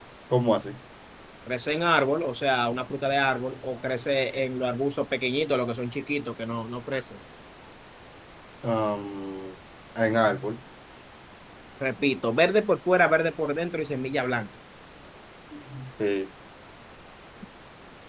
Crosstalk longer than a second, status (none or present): none